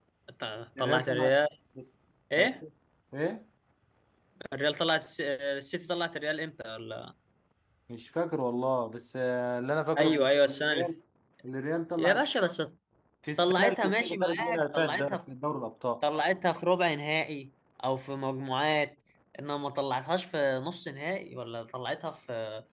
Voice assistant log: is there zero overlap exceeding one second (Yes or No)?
No